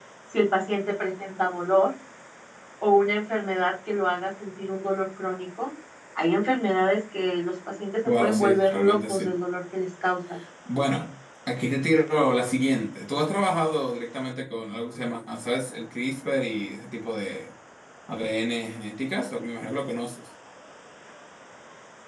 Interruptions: present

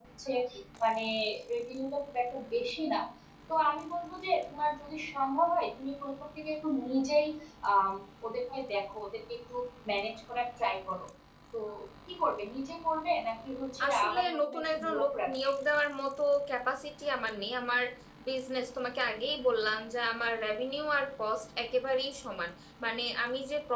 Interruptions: present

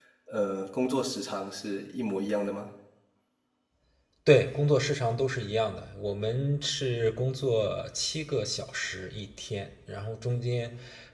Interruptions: none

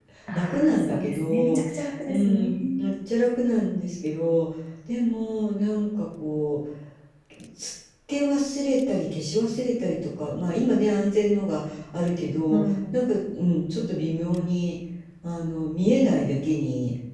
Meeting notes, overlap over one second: present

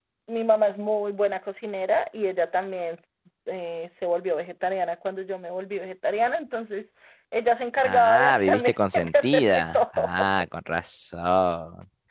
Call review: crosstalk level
present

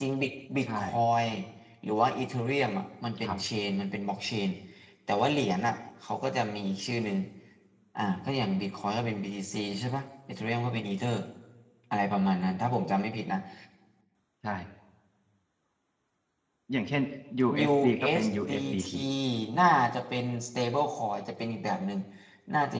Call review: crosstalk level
present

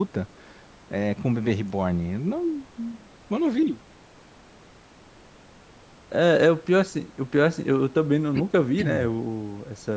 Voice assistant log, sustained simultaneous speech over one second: none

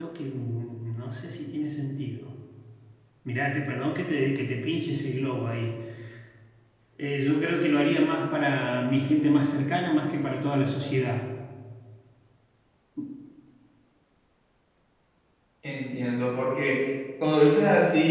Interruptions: none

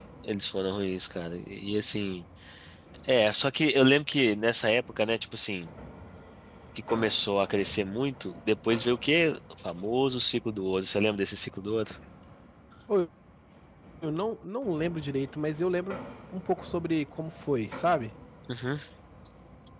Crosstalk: none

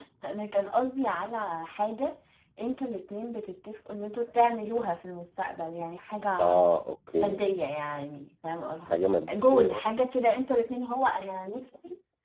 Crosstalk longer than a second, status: none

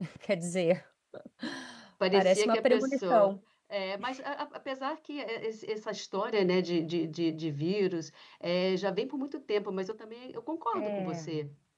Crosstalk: present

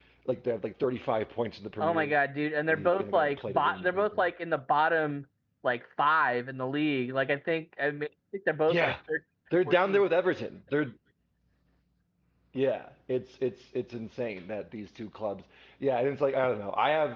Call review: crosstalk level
present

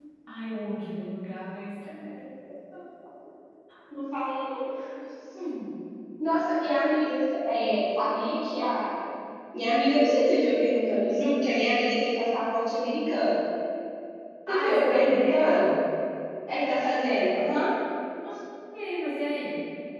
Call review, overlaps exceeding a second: present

